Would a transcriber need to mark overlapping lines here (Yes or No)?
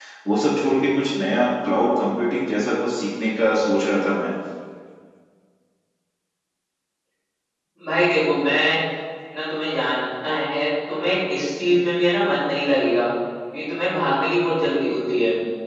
No